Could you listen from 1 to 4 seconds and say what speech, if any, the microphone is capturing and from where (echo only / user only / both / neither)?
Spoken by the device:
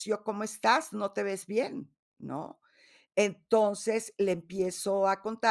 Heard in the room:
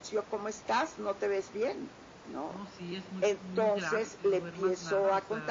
both